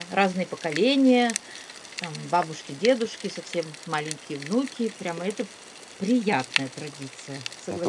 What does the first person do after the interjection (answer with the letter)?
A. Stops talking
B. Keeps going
A